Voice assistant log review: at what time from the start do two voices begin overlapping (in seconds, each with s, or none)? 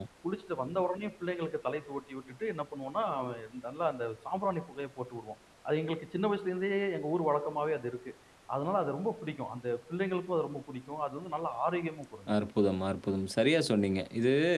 none